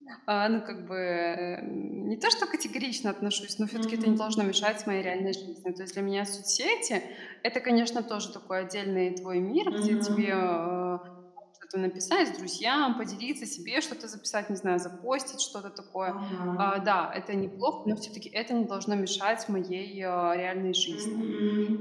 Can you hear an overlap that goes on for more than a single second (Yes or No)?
No